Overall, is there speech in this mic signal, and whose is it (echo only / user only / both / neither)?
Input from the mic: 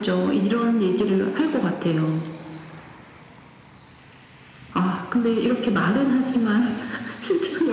echo only